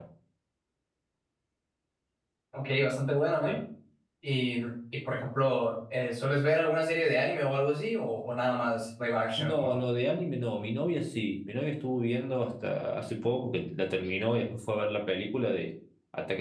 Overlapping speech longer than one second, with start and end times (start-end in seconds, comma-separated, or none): none